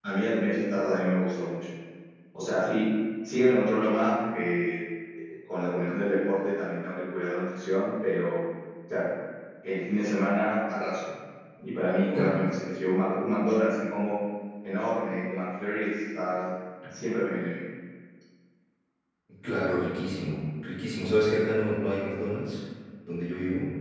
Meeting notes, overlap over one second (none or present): none